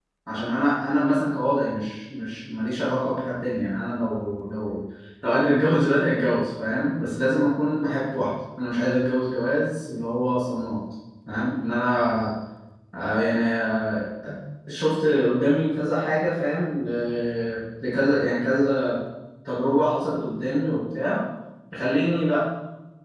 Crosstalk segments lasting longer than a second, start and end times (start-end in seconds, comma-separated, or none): none